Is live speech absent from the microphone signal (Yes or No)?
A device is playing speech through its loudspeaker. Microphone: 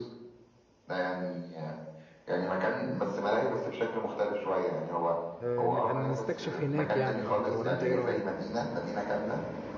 No